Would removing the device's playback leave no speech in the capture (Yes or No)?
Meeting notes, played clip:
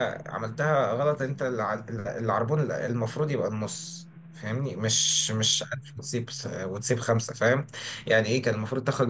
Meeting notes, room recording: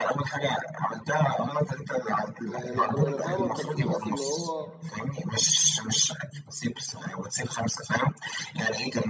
No